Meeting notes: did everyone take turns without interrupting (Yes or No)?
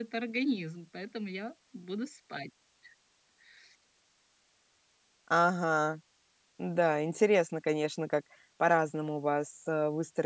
Yes